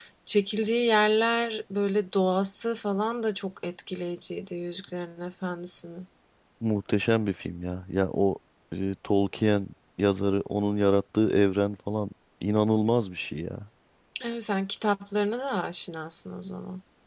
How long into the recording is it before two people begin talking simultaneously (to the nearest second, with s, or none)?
none